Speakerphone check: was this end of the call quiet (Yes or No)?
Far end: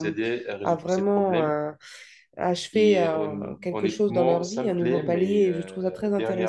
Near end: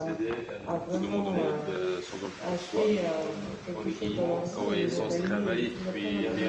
No